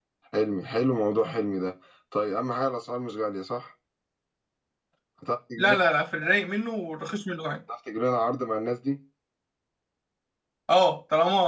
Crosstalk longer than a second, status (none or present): none